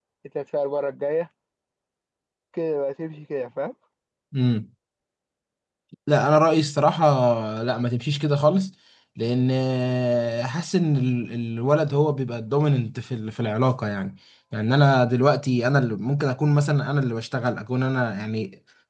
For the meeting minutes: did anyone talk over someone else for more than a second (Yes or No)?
No